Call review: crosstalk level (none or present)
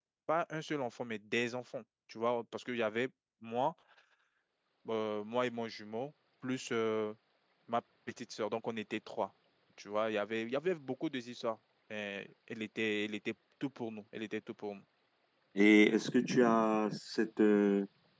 none